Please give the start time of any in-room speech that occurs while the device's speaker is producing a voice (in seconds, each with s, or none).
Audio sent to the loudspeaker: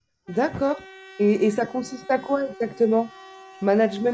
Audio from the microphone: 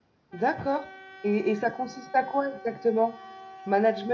none